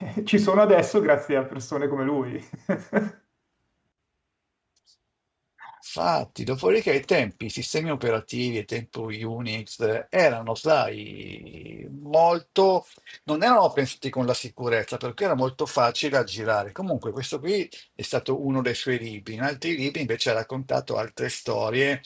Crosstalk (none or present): none